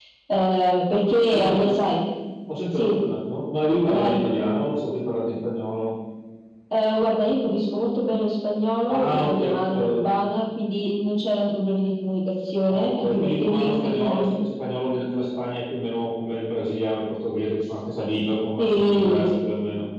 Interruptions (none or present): present